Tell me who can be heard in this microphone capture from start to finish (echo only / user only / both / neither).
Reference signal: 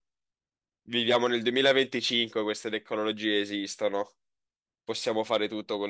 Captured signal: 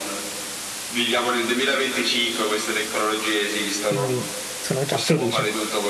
both